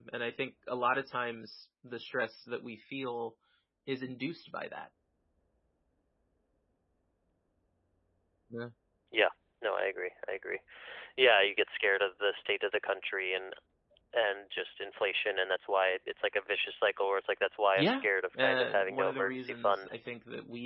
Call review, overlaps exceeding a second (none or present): present